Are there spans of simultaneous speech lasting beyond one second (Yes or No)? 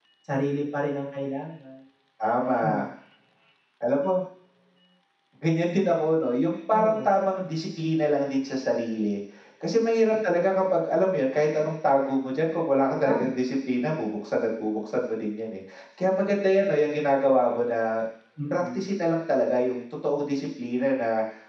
No